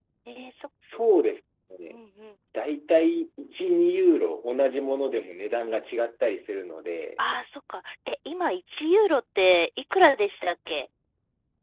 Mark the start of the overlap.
none

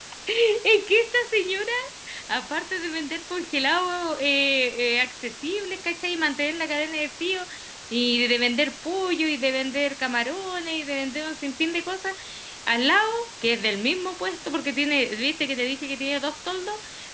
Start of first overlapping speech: none

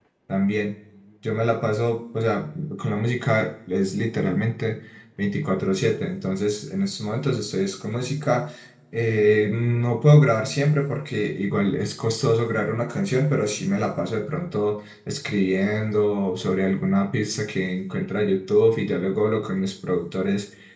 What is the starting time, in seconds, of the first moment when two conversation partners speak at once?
none

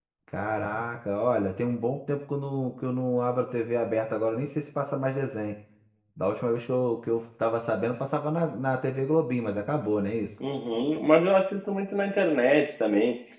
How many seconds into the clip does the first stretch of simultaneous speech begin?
none

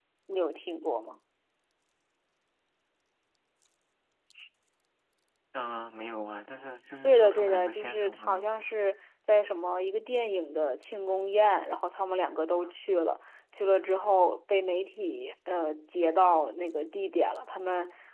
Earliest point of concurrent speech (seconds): 7 s

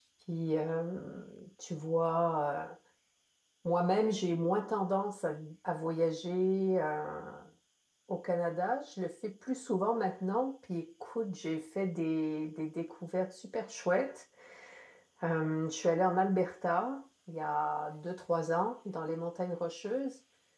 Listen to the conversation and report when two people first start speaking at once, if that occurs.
none

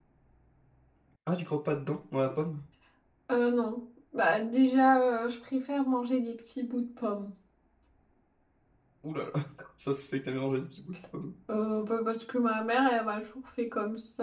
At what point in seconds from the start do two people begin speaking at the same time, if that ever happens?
none

